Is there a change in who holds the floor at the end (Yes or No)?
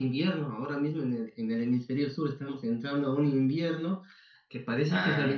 No